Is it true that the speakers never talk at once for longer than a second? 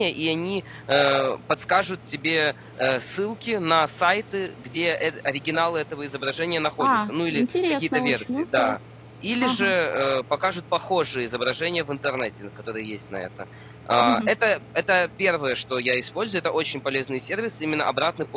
No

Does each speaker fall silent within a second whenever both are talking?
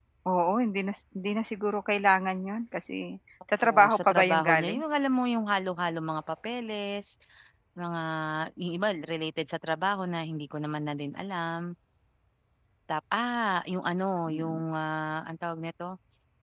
No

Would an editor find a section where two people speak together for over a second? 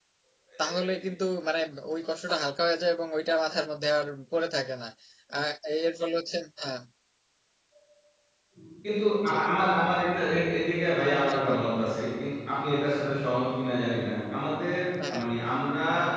No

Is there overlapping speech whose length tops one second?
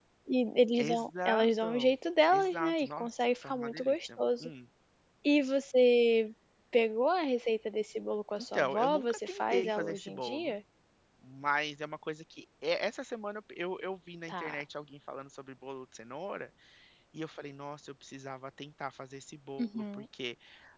Yes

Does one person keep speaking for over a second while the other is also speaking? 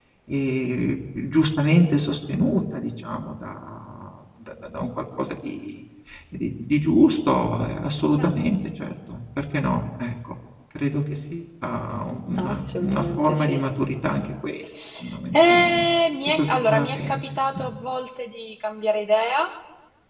Yes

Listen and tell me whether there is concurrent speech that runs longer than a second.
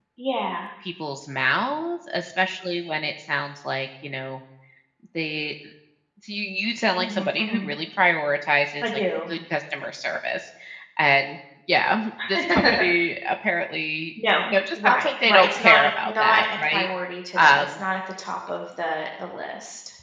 Yes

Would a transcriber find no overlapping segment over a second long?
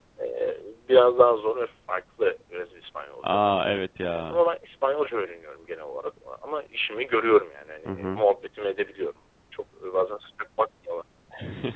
Yes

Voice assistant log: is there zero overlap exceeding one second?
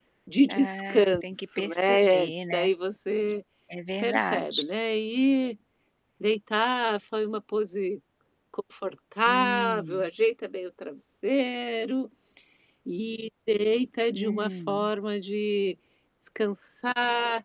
No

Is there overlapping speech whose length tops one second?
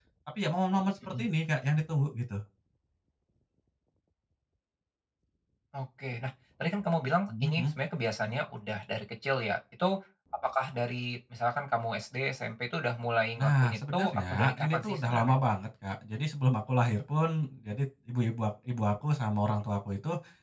Yes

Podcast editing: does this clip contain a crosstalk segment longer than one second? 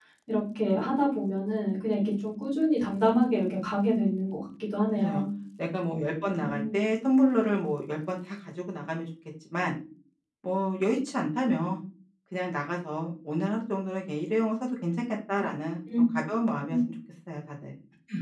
No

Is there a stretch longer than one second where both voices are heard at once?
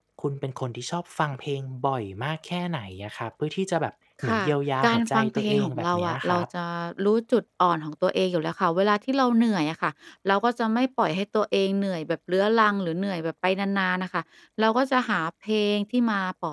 Yes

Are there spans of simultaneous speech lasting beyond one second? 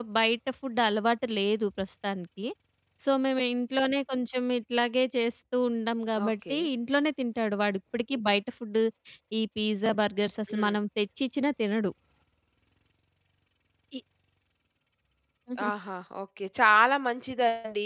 No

